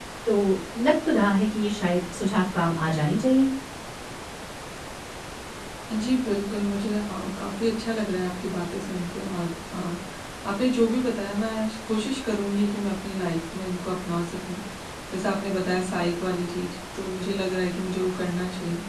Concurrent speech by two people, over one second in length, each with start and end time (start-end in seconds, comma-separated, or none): none